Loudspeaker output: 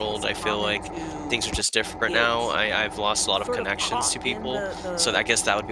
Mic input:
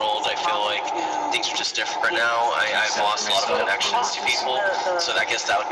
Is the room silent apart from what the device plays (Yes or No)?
No